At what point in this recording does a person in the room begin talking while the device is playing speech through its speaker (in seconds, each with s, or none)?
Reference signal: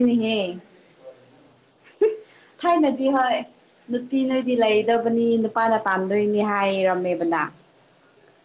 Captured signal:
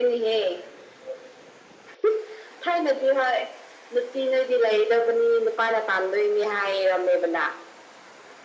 none